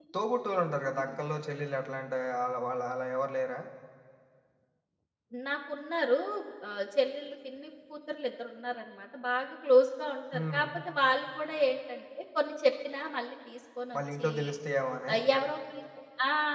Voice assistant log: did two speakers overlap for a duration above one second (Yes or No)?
No